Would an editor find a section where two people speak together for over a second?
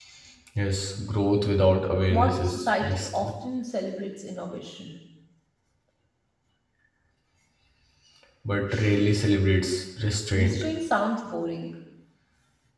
Yes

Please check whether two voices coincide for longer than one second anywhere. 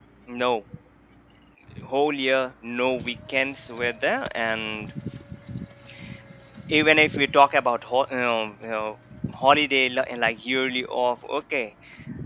No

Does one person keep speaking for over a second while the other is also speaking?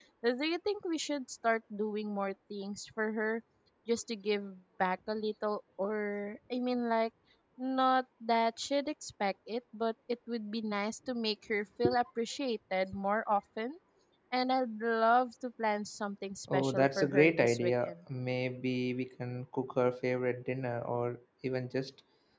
Yes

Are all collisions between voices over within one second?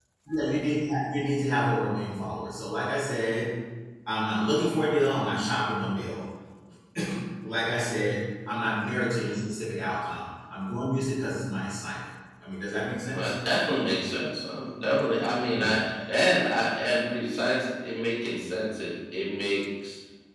Yes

